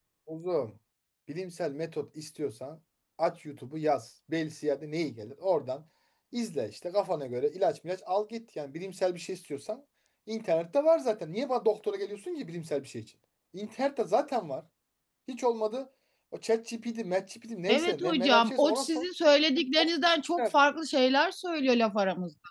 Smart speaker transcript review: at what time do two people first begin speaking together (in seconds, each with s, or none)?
17.7 s